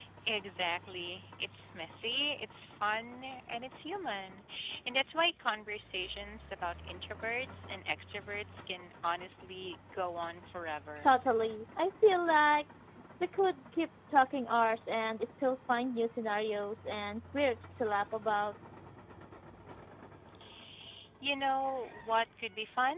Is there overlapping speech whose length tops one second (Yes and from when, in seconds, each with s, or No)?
No